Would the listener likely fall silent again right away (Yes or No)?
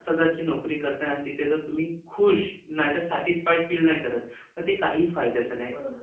No